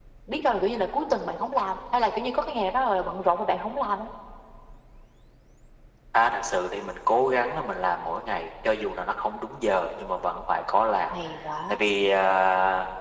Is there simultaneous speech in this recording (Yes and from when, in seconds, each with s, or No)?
No